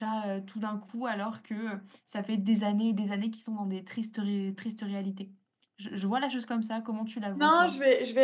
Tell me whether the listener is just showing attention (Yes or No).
No